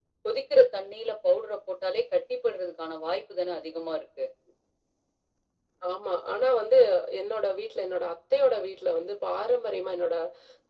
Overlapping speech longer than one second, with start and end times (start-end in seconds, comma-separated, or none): none